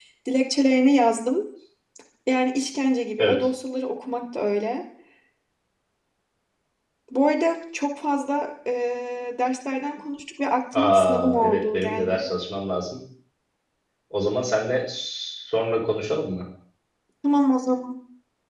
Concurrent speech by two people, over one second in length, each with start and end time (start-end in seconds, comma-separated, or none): 10.7-12.3